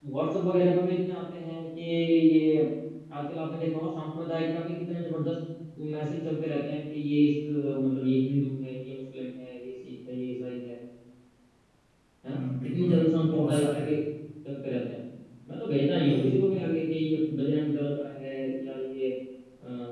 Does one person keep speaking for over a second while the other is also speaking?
Yes, from 12.3 s

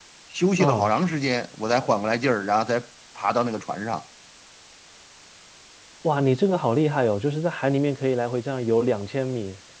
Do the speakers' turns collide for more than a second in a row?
No

